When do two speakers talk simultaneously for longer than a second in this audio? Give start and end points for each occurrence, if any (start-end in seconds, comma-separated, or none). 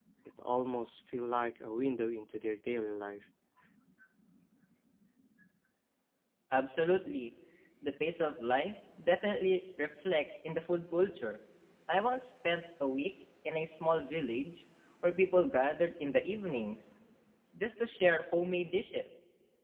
none